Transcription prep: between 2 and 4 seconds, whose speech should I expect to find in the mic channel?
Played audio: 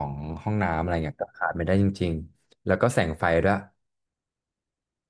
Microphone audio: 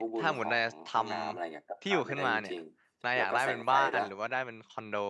both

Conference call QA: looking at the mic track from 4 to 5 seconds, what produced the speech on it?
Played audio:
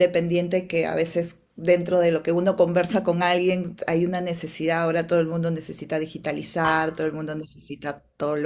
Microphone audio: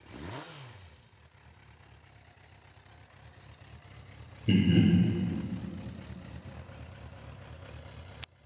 user only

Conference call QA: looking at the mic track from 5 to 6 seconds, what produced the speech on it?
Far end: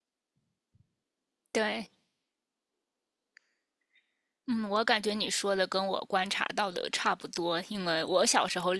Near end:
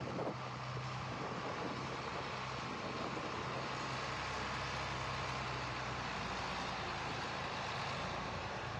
neither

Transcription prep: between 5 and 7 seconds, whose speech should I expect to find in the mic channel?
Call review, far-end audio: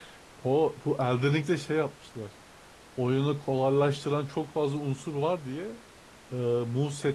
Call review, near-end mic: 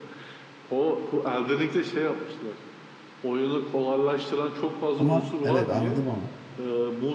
both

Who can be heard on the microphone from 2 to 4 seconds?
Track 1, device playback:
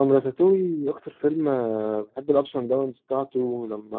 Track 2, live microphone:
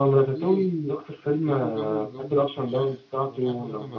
both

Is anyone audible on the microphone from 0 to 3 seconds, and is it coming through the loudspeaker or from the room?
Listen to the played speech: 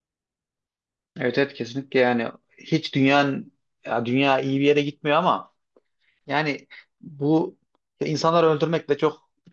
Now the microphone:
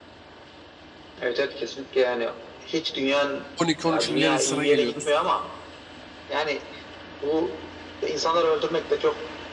echo only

